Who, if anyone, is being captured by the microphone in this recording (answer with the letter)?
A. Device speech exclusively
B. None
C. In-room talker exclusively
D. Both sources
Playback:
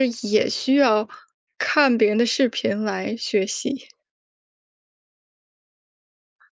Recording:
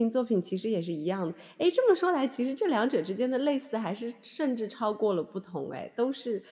C